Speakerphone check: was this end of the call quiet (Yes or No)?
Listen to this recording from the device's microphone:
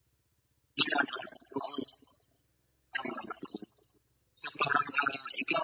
Yes